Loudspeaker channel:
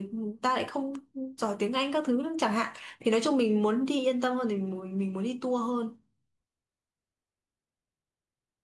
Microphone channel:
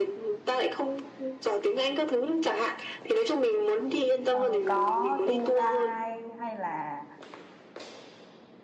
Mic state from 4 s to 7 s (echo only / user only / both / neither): both